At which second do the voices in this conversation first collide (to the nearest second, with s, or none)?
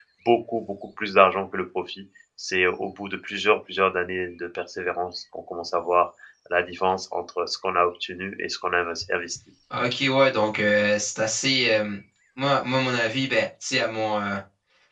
none